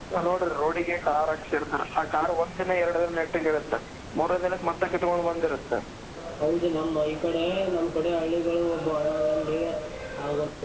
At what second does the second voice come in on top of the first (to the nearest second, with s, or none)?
none